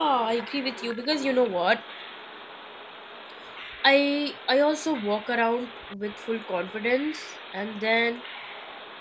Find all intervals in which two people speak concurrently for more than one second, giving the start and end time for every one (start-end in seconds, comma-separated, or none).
none